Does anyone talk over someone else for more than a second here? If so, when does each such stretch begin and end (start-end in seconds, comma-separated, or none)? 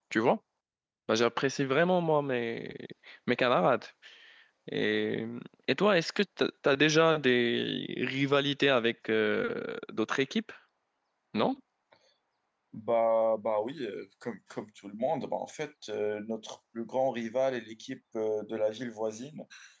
none